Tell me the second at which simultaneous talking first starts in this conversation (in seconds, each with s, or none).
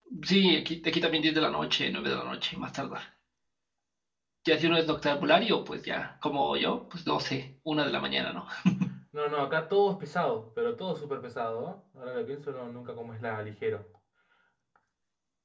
none